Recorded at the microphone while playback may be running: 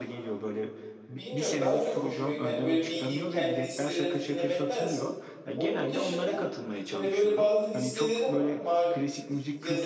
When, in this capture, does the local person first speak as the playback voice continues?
1.2 s

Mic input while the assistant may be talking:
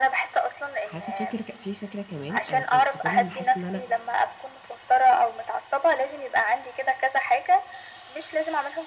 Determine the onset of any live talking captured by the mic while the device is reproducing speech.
0.8 s

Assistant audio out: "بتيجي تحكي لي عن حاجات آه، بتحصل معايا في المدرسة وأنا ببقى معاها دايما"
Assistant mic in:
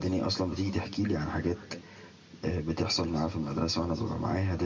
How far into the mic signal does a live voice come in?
none

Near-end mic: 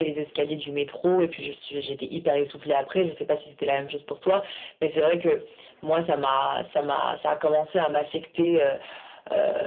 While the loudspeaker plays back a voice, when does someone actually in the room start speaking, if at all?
none

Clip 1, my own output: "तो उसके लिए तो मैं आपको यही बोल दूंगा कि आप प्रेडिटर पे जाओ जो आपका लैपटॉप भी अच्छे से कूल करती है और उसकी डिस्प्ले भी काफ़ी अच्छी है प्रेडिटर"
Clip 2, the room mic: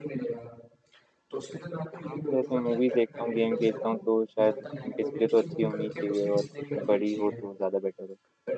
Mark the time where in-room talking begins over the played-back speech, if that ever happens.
2.0 s

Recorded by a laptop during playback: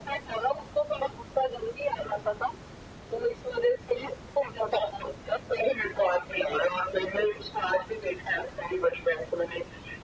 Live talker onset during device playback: none

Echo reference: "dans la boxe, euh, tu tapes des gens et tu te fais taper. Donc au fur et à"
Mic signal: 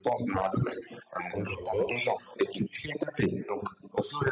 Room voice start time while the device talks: 1.3 s

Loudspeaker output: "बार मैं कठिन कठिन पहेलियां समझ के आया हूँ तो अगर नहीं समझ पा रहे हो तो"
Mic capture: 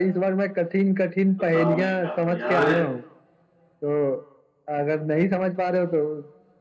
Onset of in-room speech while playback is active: 1.4 s

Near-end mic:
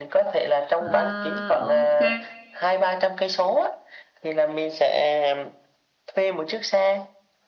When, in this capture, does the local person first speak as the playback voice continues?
0.8 s

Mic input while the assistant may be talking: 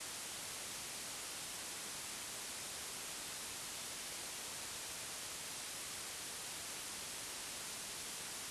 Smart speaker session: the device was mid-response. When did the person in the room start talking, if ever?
none

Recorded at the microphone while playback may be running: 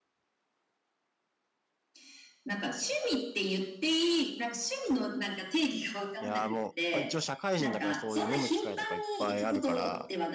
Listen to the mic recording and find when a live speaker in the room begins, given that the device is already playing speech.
6.2 s

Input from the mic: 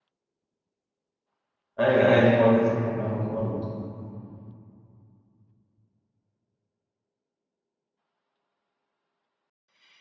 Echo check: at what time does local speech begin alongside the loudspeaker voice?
1.8 s

